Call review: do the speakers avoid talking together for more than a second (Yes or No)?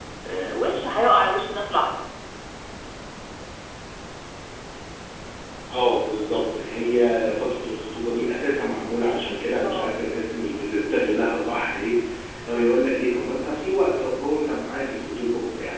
Yes